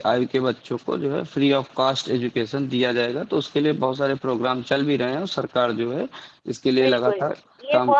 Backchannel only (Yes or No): No